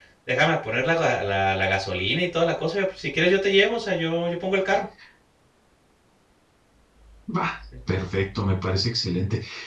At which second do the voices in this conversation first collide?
none

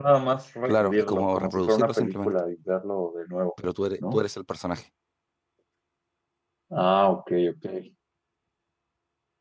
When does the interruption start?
1 s

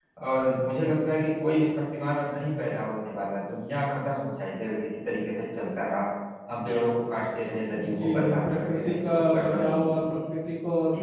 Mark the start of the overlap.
8 s

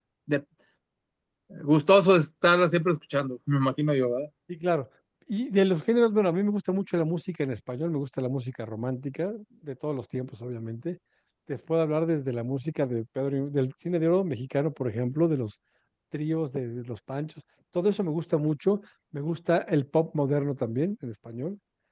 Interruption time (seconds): none

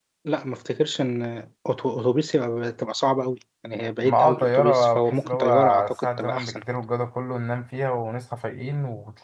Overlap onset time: 4 s

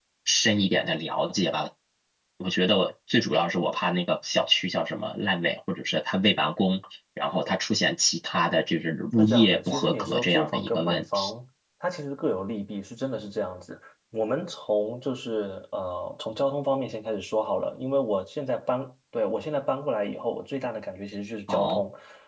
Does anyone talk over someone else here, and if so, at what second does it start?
9 s

